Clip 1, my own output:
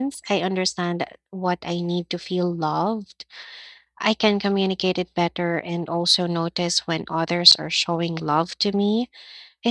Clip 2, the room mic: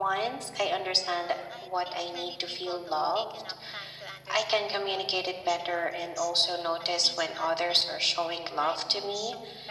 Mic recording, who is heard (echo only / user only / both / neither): both